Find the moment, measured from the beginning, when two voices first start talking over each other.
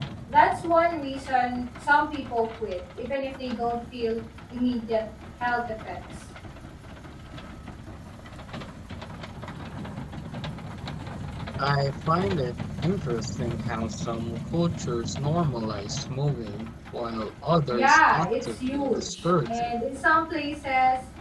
17.7 s

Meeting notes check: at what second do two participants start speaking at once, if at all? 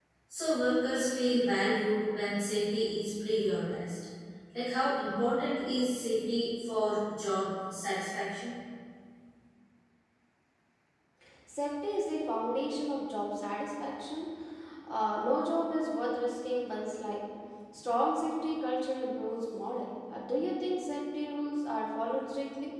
none

